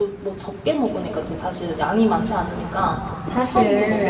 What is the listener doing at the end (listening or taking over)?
taking over